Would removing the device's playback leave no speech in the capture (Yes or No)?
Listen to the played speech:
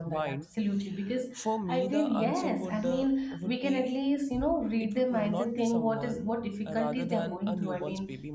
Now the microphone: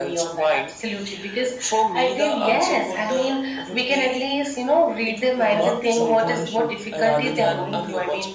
No